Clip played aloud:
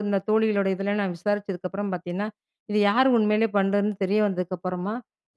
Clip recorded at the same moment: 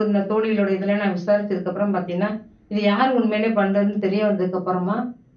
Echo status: present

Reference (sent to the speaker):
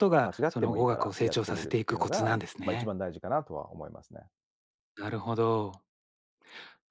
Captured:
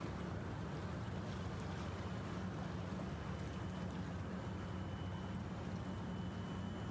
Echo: none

